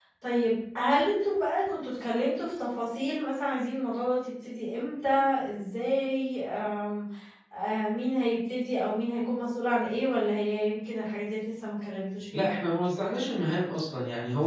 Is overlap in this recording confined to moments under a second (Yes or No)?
Yes